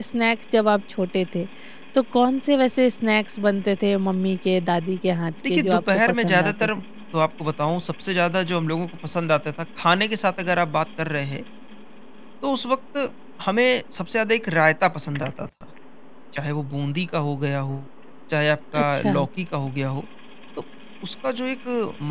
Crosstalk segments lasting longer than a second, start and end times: 5.5-6.7

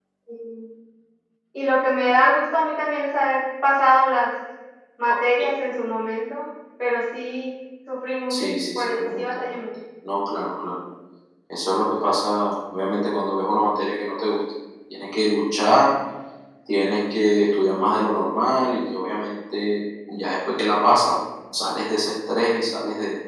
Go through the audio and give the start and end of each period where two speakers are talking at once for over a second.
8.3-9.6

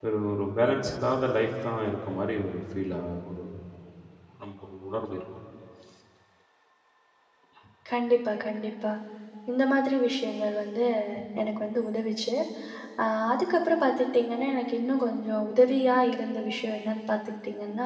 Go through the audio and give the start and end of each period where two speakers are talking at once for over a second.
none

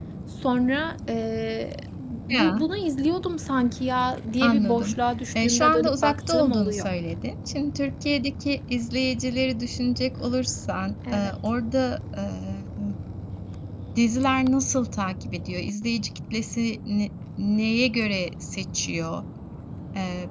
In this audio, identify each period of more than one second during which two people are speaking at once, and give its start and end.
5.4-6.8

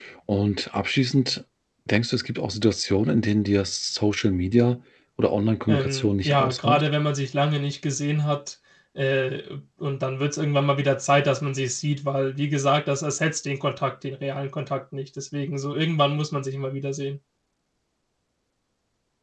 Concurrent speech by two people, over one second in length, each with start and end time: 5.7-6.9

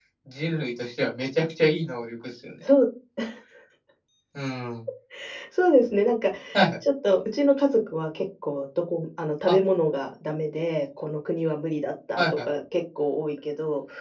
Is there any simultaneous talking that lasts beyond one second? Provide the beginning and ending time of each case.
none

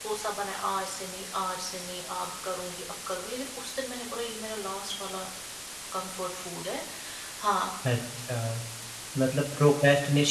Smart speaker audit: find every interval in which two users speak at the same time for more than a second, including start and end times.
none

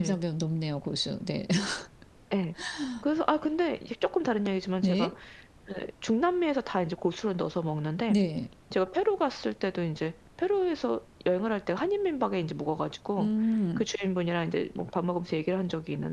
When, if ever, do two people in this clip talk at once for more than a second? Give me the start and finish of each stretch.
none

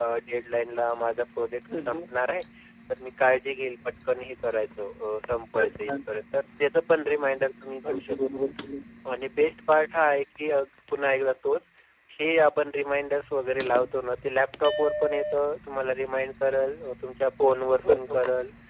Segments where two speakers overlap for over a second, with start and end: none

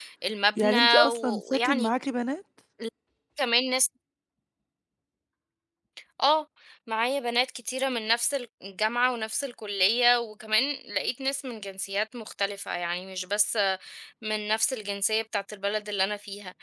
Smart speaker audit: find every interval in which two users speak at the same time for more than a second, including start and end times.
0.6-1.9

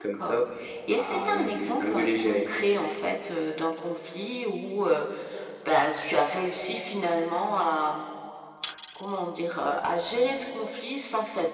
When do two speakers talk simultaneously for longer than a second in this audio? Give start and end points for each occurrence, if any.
1.0-2.5

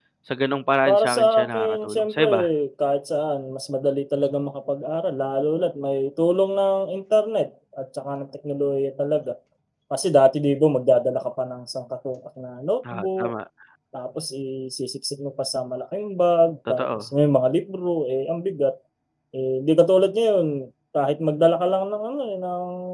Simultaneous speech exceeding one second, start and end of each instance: 0.8-2.3

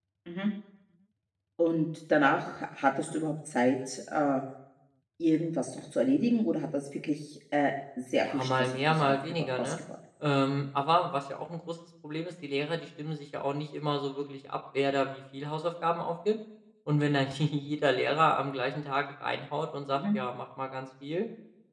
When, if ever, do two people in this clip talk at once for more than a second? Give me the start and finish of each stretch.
8.2-9.7

